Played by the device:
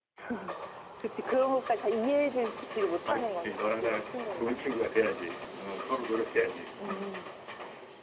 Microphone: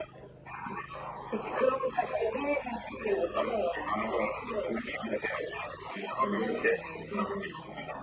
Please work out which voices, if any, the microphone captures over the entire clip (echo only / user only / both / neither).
both